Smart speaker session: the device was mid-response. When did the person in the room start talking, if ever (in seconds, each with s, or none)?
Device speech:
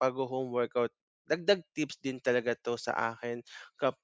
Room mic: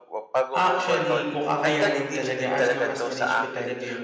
0.5 s